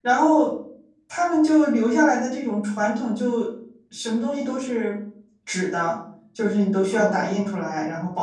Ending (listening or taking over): listening